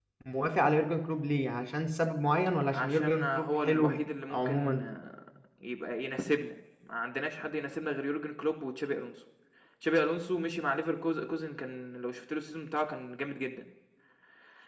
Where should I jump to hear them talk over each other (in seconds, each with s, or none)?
2.7 s